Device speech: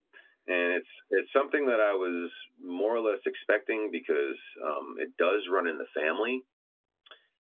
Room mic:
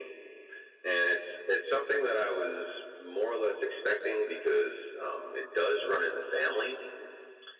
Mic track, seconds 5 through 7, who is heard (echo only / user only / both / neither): echo only